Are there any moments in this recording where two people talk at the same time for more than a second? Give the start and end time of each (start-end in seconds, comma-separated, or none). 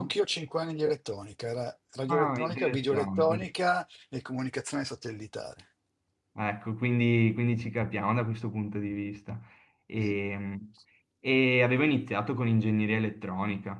2.1-3.5